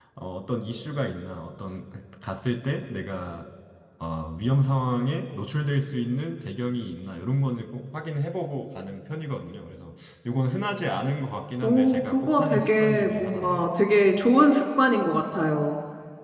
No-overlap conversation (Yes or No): No